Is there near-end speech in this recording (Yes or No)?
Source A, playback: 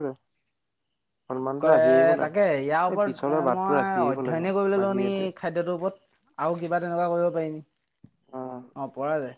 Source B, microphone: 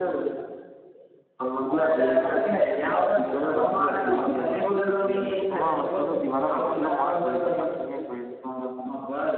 Yes